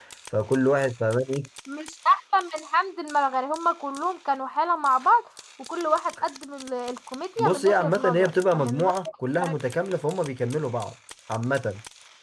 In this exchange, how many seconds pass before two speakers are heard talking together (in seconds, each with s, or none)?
7.4 s